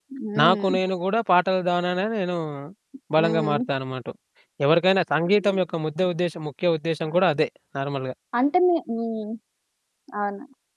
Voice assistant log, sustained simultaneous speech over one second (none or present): none